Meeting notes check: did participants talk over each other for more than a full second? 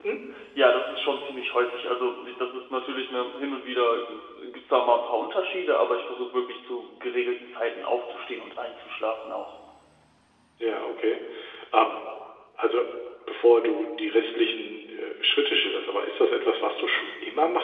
No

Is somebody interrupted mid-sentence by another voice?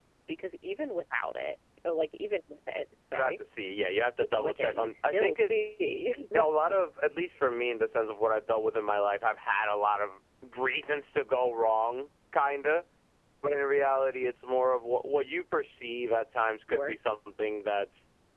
Yes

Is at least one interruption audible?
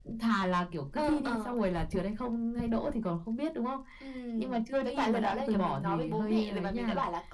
Yes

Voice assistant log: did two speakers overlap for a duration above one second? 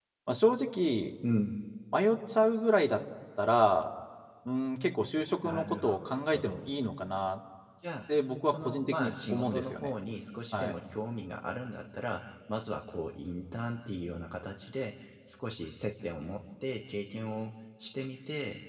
Yes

